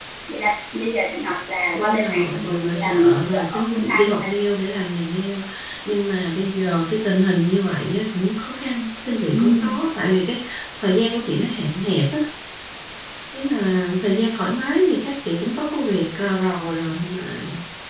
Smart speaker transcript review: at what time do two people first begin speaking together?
1.7 s

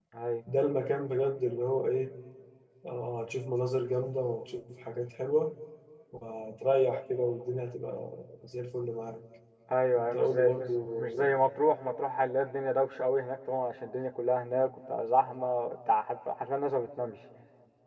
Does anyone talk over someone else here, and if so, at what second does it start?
9.9 s

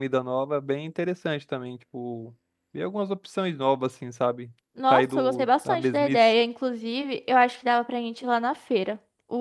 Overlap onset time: 4.8 s

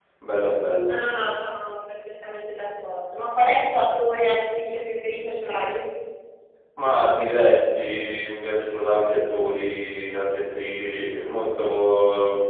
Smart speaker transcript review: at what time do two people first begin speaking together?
none

